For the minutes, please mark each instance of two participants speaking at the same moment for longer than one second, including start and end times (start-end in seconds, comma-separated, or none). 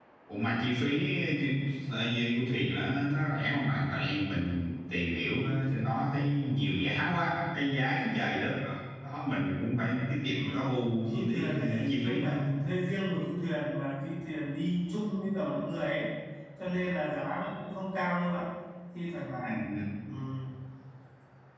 11.1-12.3